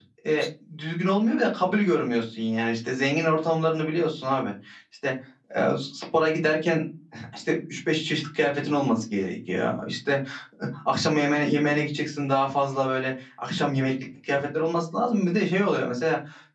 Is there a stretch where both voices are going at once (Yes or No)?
No